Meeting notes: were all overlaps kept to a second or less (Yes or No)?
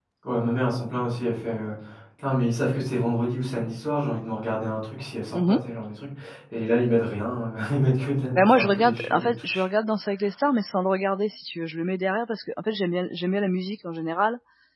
No